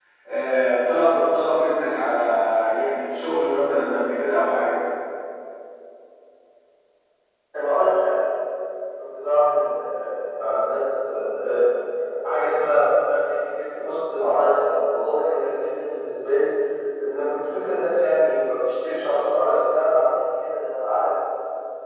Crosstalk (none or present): none